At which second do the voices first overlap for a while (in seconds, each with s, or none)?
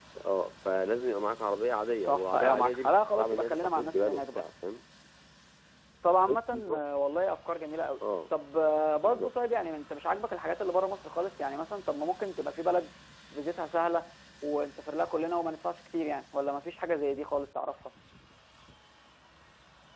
2.0 s